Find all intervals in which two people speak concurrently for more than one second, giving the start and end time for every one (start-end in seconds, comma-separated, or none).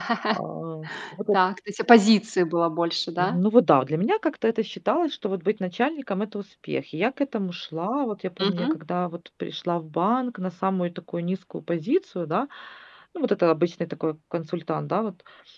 none